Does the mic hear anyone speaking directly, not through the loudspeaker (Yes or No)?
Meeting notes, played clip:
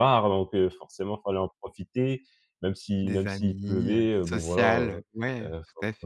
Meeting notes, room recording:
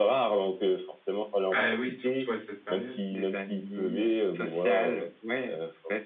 Yes